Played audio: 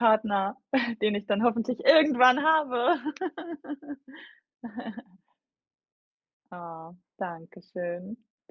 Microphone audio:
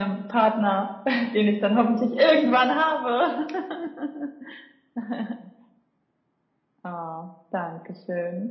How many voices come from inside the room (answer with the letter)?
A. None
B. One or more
A